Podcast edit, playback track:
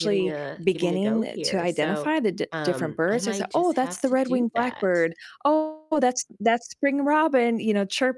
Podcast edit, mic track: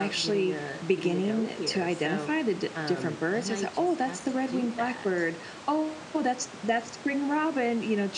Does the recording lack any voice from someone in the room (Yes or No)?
Yes